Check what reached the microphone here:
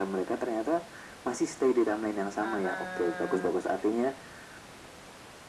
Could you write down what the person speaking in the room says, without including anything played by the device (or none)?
Heeh.